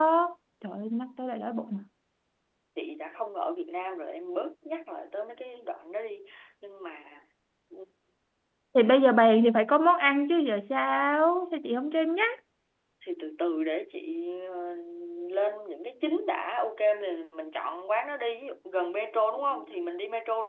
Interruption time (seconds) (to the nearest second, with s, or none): none